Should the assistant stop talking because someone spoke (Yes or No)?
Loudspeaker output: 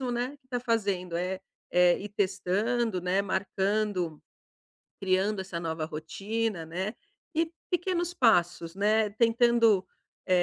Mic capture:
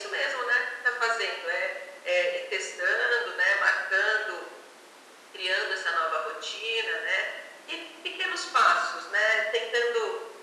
No